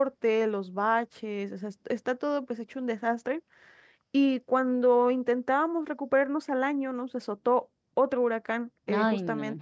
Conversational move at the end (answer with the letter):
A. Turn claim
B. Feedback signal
B